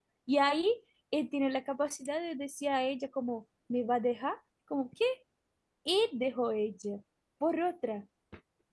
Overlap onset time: none

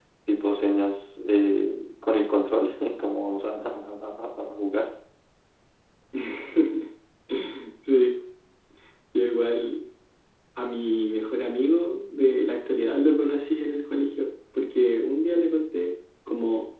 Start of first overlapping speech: none

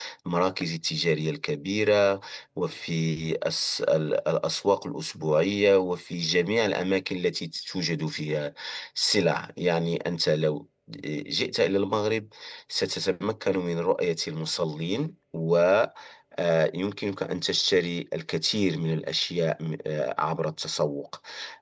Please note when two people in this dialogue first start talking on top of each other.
none

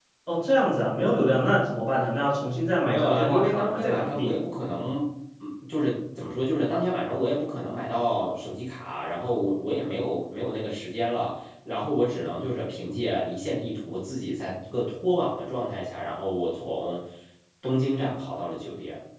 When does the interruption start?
3 s

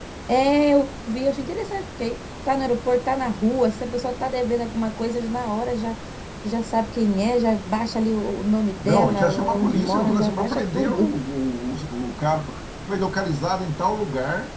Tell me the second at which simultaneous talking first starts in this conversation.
9 s

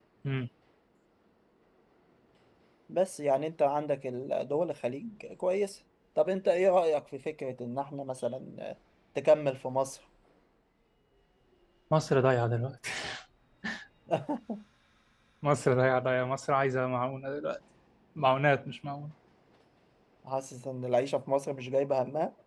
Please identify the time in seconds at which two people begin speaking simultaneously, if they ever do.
none

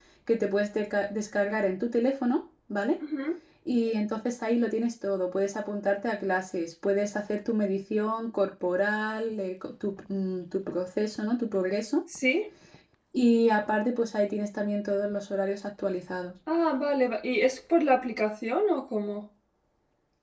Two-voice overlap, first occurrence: none

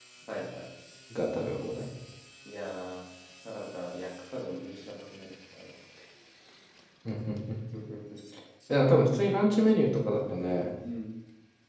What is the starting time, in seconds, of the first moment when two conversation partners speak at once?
none

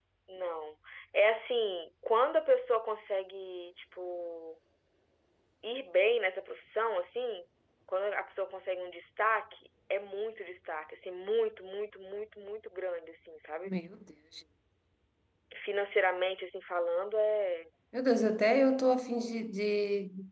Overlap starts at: none

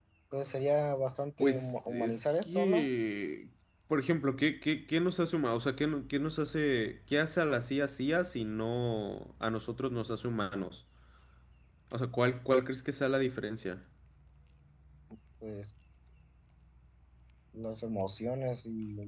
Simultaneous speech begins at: 1 s

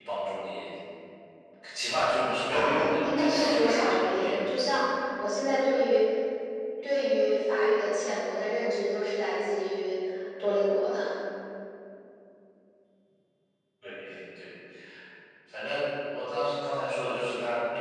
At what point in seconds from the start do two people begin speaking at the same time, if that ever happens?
3 s

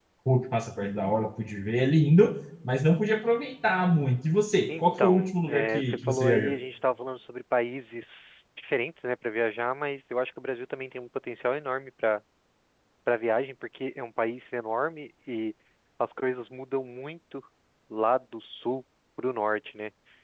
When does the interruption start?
5 s

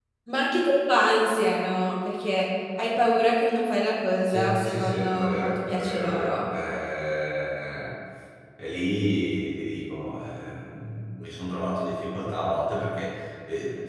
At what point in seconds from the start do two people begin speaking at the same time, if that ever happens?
4 s

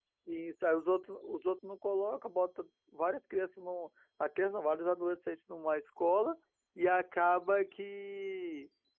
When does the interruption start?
none

